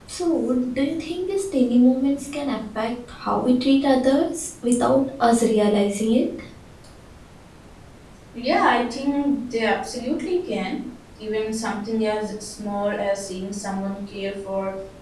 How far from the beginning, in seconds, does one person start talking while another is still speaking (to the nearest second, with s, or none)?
none